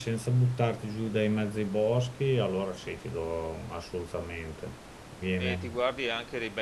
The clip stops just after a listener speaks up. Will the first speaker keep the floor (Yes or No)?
No